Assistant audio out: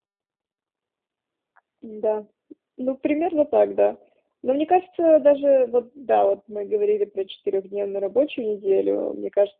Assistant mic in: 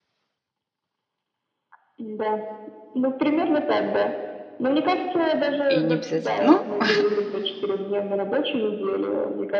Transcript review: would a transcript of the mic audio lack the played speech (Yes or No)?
No